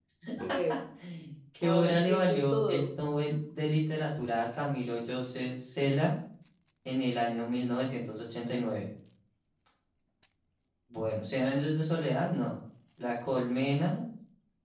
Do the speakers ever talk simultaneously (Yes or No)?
Yes